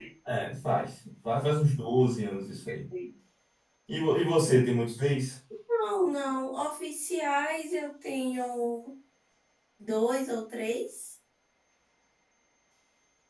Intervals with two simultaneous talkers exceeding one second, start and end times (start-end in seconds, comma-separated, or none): none